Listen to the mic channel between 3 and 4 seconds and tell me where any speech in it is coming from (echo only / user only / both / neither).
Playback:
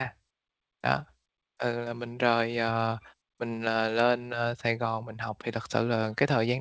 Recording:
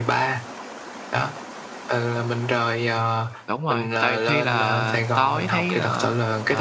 both